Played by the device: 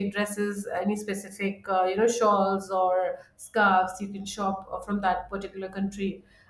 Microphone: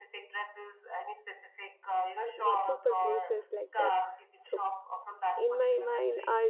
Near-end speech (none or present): present